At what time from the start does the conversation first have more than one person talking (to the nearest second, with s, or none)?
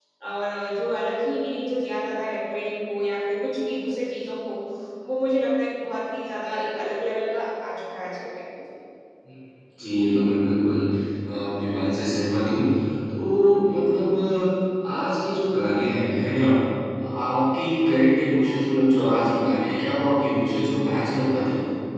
none